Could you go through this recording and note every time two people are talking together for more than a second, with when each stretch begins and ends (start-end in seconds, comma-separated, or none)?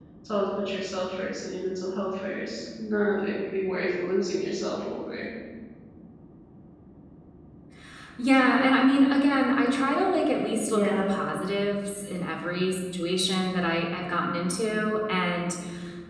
none